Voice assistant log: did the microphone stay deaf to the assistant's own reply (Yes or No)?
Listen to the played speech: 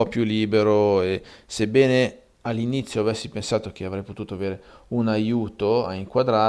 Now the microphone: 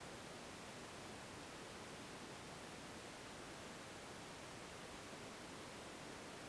Yes